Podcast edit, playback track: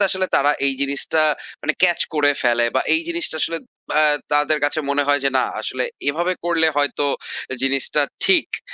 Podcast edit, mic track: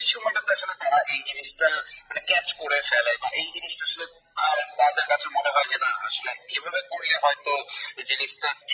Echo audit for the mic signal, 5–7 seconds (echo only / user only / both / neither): echo only